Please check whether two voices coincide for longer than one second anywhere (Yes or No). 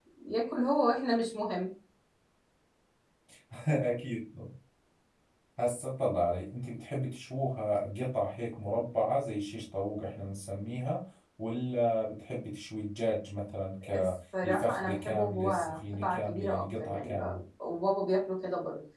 Yes